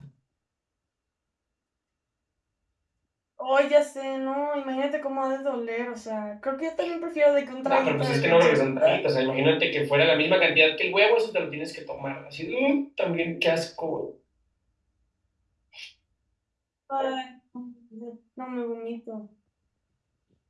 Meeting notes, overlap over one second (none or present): present